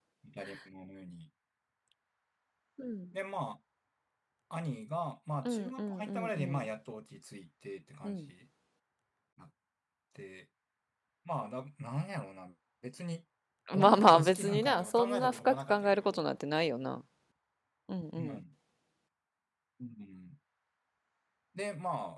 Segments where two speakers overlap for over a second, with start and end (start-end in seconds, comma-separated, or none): 5.4-6.7, 13.8-16.3